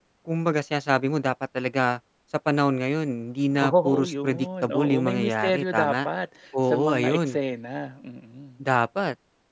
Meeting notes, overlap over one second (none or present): present